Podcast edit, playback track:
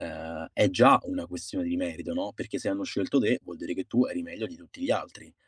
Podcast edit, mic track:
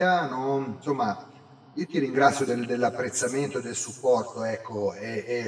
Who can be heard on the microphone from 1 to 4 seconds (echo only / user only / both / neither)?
user only